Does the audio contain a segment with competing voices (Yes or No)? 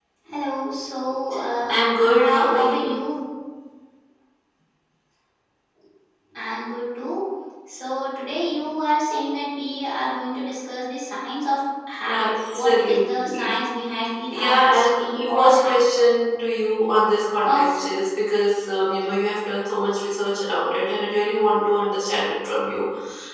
Yes